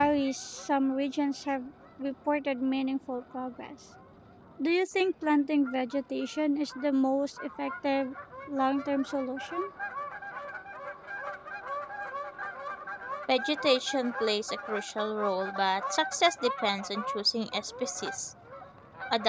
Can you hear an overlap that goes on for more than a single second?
No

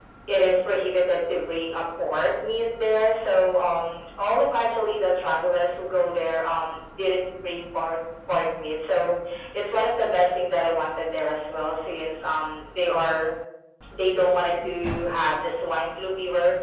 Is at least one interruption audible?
No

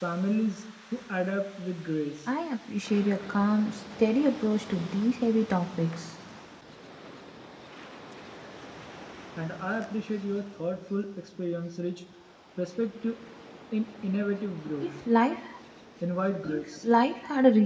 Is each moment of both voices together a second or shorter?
Yes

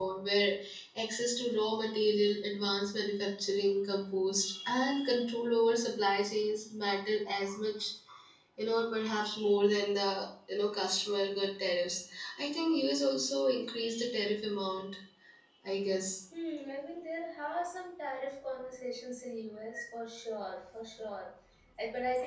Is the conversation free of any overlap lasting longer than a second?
Yes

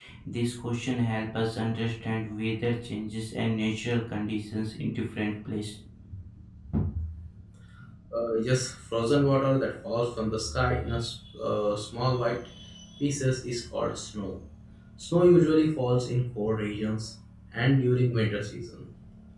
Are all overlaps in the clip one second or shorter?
Yes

